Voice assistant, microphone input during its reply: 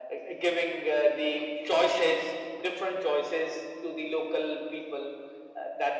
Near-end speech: none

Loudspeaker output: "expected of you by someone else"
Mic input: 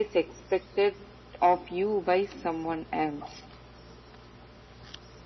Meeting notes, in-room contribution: none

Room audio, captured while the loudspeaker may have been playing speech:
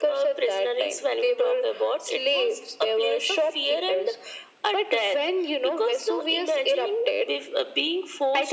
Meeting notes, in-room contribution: none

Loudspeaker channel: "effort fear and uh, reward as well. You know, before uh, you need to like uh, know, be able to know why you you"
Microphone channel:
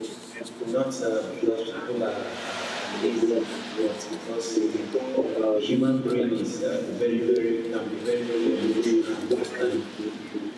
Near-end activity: present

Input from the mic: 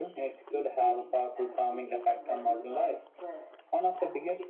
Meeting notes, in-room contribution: present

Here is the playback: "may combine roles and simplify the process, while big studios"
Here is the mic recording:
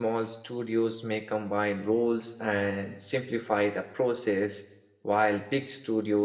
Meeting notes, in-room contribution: none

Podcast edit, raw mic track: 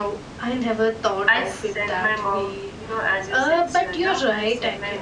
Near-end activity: present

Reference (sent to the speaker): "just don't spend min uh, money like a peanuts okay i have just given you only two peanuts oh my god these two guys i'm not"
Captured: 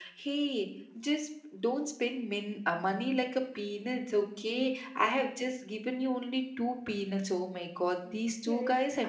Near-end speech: present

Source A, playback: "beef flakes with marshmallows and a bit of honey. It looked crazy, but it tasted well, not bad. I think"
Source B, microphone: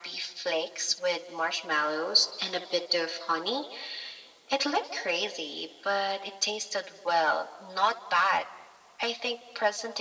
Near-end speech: none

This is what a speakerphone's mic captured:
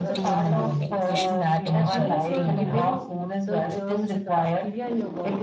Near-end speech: present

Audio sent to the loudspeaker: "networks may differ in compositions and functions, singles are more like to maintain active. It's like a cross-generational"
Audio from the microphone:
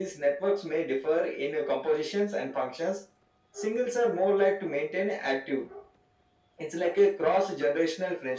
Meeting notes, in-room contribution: none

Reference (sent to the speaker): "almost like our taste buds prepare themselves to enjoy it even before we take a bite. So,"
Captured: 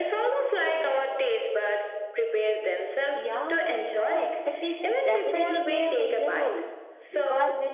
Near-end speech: present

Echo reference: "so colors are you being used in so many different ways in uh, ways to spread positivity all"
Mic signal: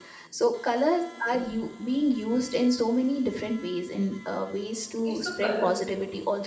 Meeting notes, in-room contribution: present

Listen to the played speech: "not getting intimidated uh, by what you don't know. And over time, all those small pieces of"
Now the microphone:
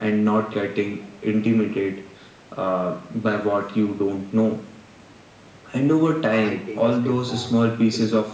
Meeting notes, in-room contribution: present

